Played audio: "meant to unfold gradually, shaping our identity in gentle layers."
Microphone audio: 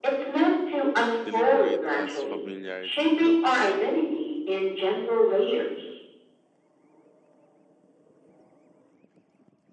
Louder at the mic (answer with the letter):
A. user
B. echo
B